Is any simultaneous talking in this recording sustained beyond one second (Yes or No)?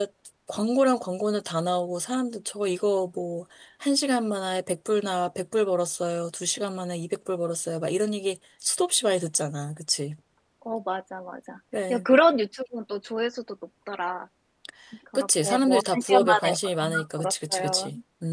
Yes